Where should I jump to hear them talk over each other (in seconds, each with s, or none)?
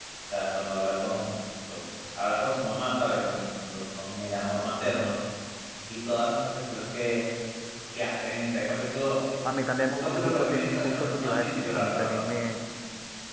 9.9 s